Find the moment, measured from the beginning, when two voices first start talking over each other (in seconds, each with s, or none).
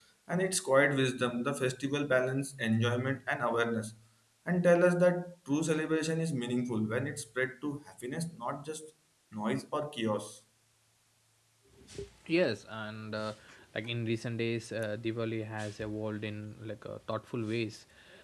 none